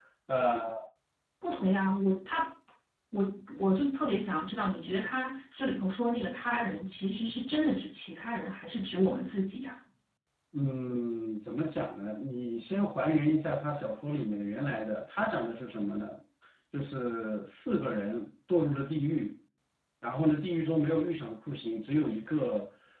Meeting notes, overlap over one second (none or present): none